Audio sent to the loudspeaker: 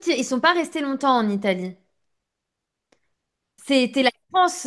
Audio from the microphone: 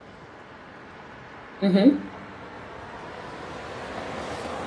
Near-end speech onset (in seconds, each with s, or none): 1.6 s